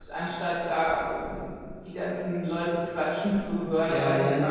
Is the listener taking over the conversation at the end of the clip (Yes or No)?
Yes